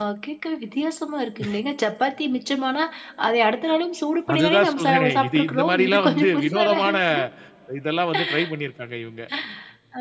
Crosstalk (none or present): present